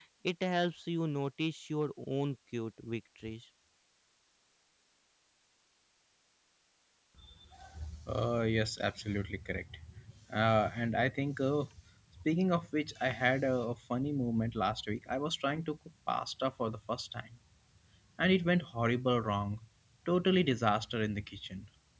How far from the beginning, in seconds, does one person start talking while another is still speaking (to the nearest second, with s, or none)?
none